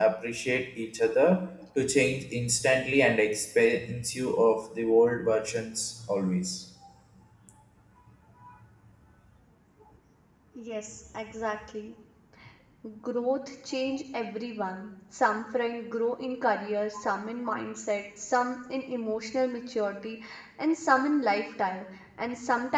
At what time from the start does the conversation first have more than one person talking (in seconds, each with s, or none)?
none